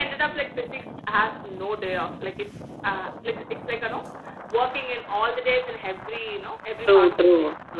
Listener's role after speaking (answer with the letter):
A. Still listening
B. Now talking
B